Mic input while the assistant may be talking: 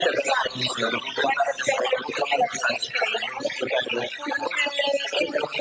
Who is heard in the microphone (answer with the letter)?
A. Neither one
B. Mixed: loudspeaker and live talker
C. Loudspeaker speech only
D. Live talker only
C